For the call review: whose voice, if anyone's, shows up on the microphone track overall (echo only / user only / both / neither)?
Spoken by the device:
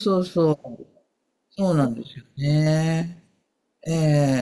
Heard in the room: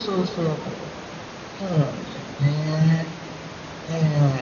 echo only